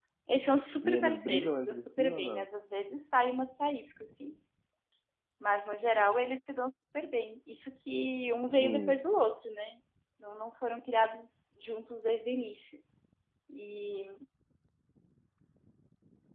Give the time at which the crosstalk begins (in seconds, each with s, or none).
0.8 s